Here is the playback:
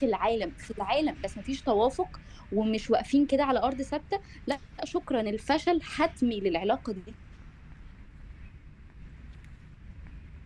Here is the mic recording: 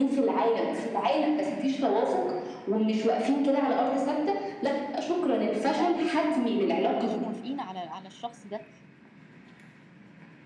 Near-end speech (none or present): present